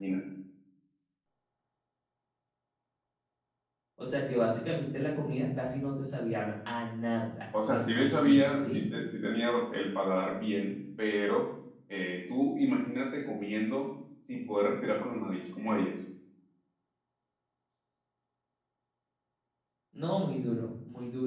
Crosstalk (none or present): present